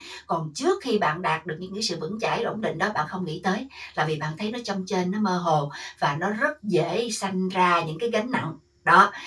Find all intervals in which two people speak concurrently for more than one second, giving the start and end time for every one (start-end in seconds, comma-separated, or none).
none